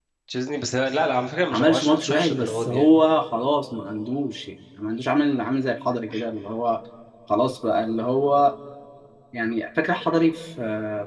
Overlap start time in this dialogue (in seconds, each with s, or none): 1.5 s